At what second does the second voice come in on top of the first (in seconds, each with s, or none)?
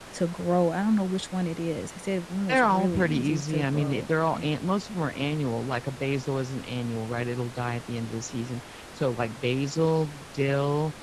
2.5 s